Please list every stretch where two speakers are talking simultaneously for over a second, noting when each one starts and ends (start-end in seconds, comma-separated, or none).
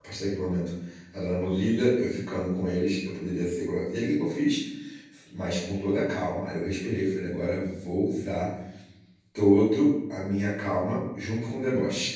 none